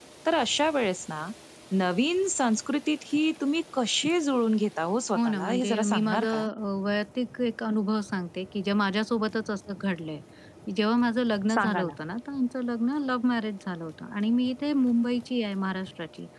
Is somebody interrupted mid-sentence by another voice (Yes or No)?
Yes